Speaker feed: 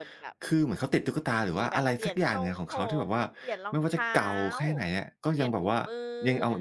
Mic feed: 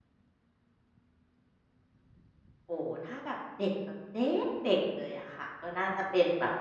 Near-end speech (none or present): present